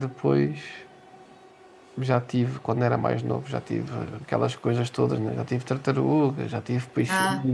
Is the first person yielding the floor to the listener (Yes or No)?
No